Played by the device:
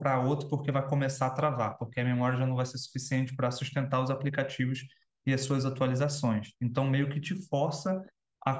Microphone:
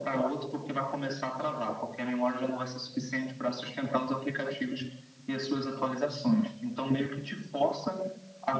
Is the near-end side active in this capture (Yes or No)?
No